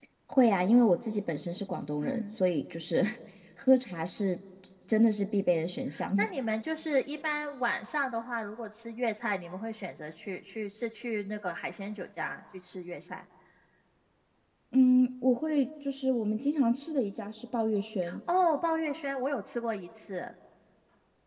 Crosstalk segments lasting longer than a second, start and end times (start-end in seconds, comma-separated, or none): none